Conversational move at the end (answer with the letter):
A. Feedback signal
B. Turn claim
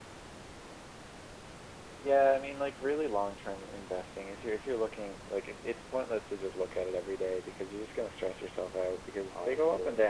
A